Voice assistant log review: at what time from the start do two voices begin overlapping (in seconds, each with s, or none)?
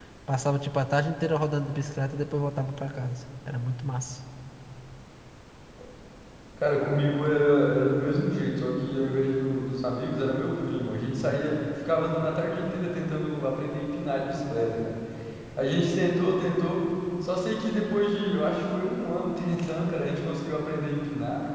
none